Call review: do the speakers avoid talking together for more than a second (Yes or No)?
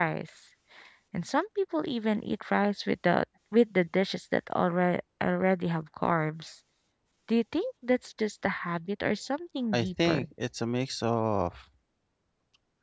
Yes